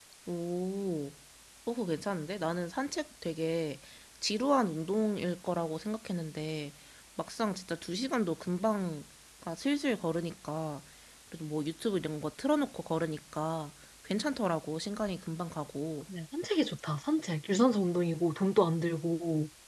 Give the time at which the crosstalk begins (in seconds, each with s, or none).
none